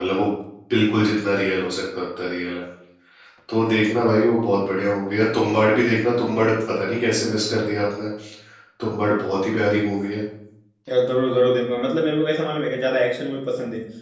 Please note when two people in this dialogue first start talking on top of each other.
none

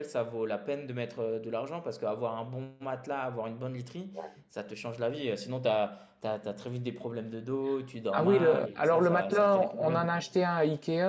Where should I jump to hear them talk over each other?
8.1 s

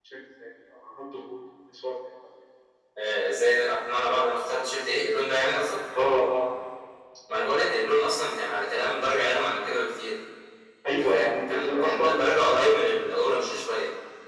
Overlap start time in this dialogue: 10.9 s

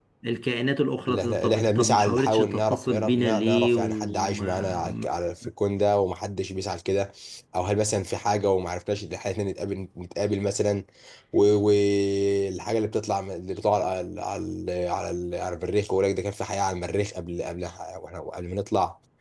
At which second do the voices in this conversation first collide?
1.1 s

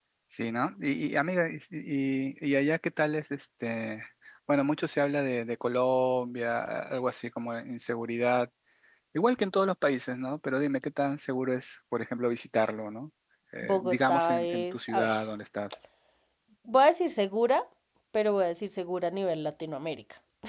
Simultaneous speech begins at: 13.6 s

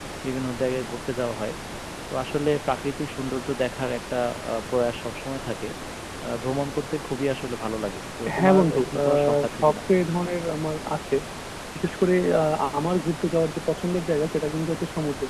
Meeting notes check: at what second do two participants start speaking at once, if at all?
8.3 s

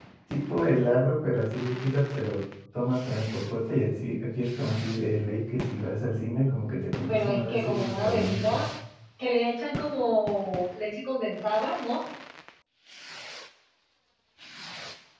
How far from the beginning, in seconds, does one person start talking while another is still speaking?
7.1 s

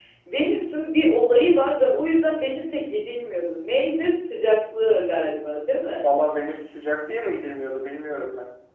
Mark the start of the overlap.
none

